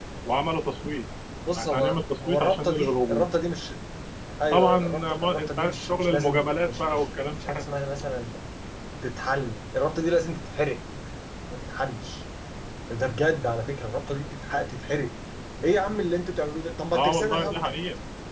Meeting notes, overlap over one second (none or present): present